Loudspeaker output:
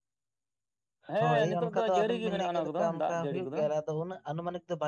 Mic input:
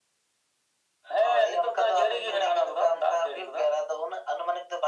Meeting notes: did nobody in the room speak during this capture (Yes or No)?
Yes